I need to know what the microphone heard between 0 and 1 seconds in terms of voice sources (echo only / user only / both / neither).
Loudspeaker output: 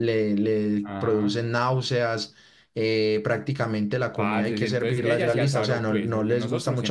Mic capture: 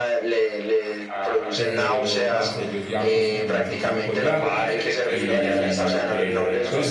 echo only